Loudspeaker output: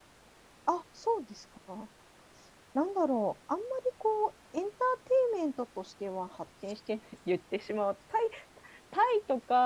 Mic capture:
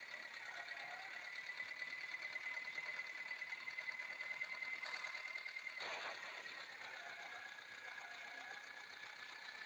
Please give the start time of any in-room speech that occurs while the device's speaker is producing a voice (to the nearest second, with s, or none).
none